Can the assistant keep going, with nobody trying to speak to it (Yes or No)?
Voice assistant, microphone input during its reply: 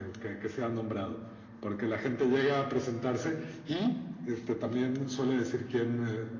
Yes